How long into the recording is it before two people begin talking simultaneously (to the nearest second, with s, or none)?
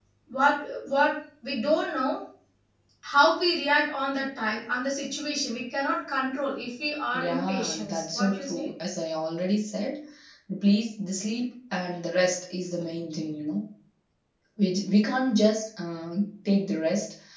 7 s